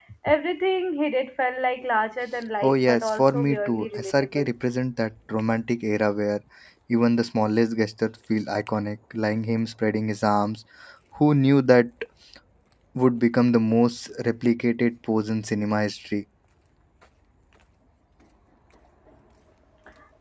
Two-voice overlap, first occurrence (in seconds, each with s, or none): 2.6 s